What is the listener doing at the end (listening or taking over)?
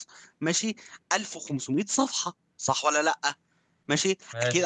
listening